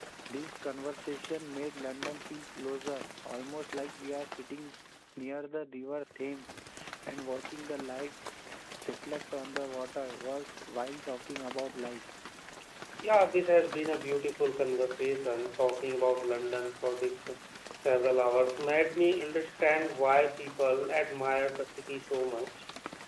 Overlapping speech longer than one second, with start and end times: none

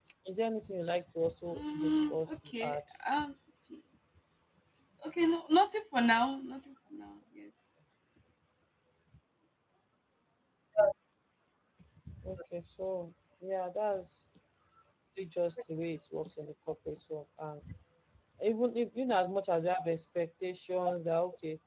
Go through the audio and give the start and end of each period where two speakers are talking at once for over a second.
1.5-2.8

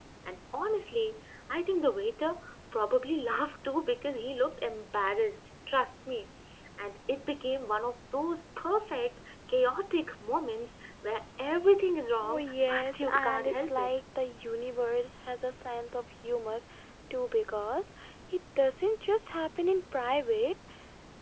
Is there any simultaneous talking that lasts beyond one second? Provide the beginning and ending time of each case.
12.2-14.0

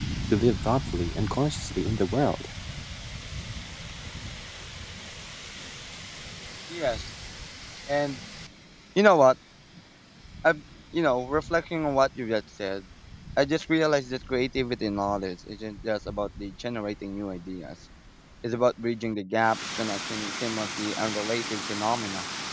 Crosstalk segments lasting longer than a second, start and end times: none

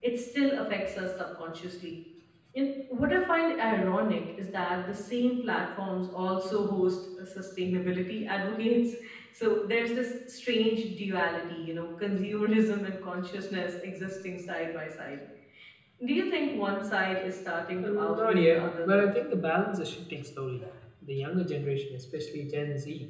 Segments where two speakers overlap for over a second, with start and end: 17.8-19.1

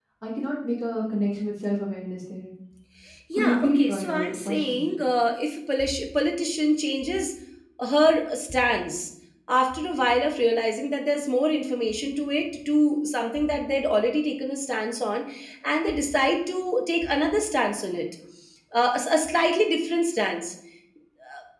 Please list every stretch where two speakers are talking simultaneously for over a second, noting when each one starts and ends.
3.4-4.8

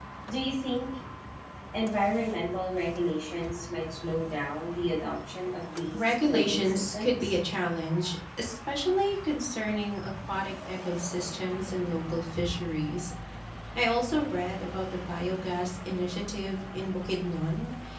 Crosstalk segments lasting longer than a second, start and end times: 5.9-7.3

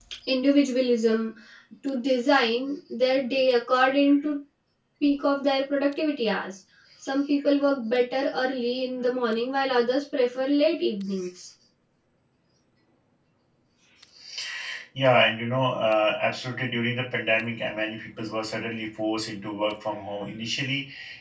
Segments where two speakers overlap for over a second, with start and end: none

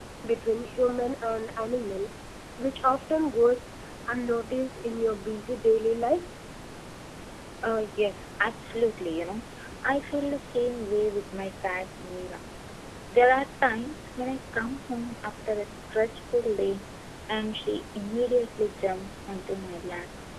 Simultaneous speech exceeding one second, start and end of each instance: none

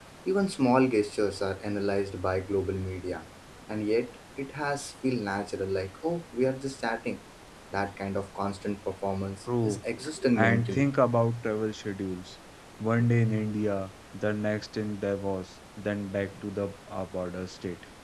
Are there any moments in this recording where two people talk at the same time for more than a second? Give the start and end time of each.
none

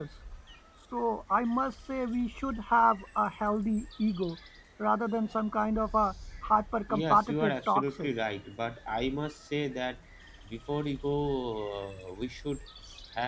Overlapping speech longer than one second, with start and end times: 6.9-8.1

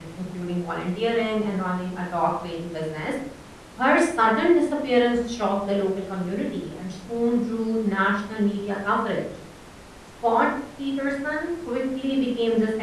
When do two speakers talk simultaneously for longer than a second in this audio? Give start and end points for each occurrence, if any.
none

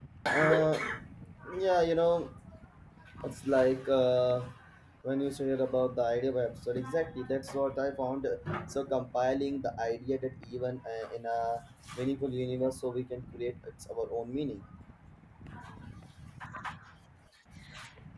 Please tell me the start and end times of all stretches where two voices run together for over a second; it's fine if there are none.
none

